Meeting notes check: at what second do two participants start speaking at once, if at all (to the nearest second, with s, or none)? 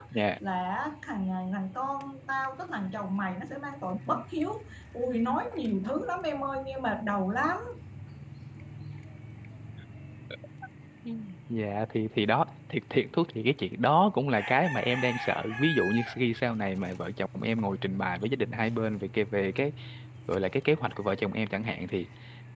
none